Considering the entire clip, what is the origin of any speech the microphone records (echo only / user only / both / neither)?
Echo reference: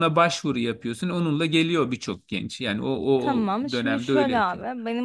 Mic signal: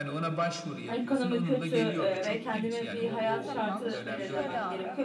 both